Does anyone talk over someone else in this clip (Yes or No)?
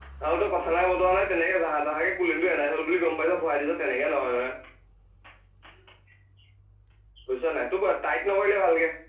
No